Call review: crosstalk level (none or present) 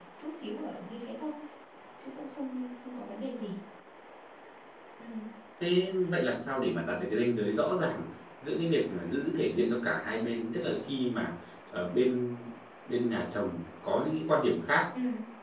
none